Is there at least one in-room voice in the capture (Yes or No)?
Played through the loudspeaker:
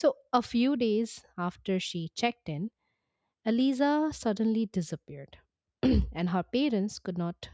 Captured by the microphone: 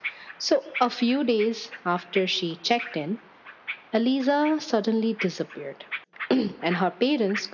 No